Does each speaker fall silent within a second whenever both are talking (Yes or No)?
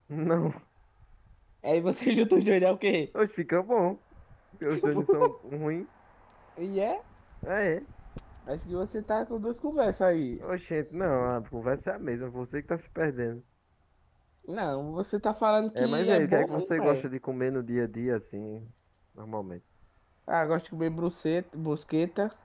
No